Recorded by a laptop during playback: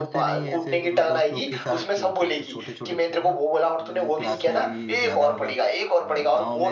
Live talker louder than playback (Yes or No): No